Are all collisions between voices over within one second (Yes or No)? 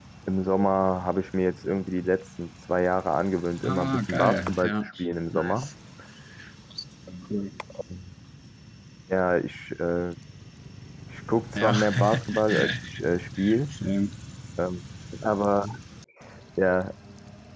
No